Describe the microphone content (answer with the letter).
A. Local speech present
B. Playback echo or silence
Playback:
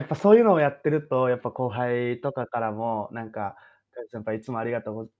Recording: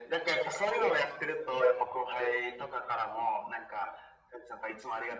B